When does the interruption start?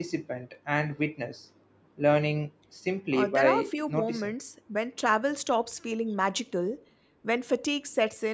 3 s

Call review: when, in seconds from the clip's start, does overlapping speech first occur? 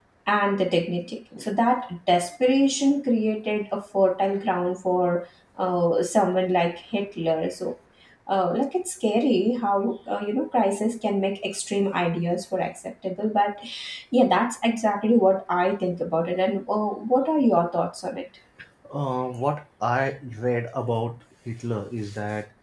none

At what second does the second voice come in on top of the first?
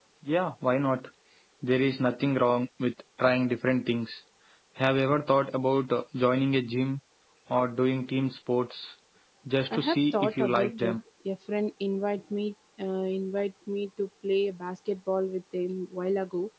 10 s

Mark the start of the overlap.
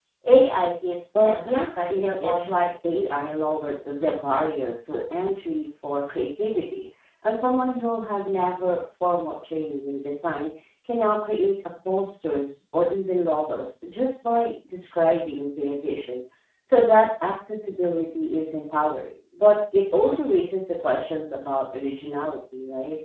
1 s

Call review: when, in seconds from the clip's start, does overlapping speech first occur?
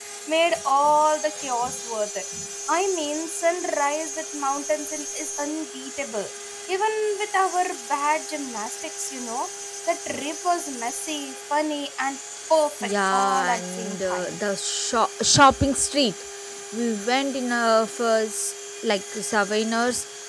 13 s

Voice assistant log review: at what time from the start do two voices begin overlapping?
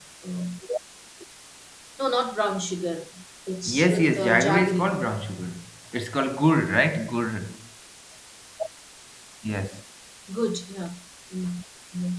4 s

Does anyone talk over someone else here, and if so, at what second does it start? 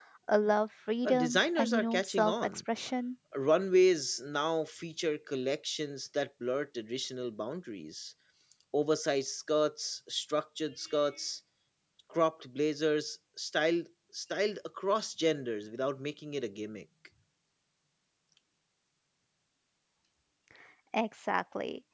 1 s

